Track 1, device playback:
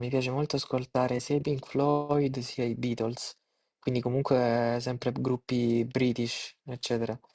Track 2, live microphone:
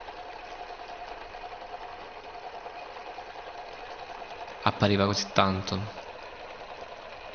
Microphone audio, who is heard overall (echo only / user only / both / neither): user only